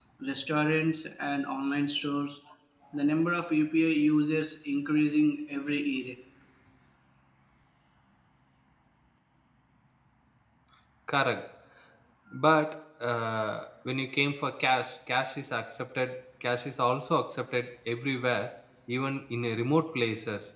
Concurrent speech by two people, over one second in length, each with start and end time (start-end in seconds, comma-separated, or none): none